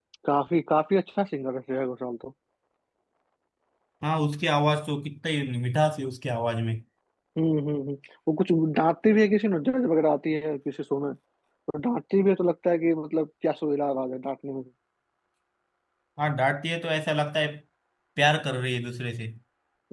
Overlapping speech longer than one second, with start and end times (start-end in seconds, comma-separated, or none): none